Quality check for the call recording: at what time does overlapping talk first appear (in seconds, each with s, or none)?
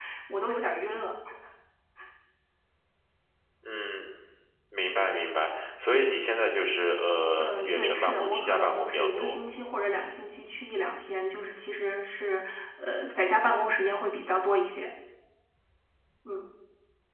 7.4 s